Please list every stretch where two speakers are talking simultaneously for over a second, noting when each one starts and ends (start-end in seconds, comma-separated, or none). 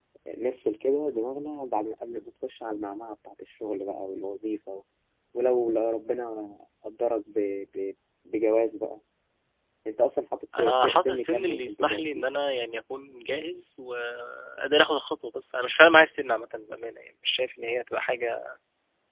10.6-12.0